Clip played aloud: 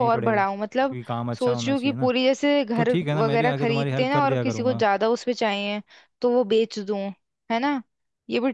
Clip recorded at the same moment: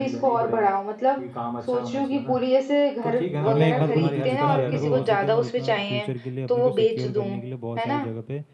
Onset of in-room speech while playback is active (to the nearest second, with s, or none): 3 s